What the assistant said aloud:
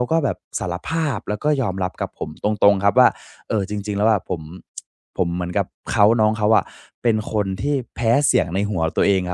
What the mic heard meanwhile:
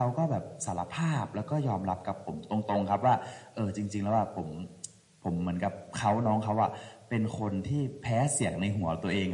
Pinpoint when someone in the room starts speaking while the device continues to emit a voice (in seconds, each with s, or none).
none